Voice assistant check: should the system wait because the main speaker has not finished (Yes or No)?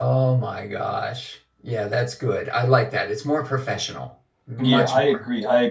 No